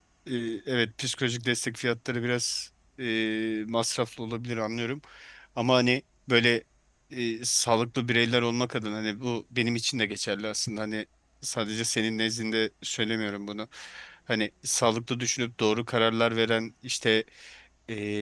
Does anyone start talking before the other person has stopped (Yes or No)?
No